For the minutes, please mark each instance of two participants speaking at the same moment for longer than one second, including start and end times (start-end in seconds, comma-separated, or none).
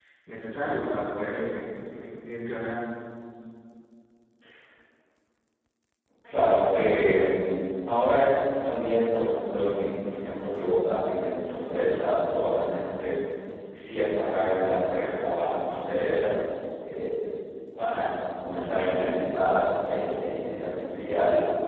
none